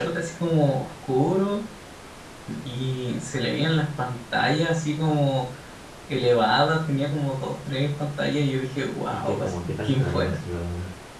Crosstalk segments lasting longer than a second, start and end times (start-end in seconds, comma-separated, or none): 9.1-10.4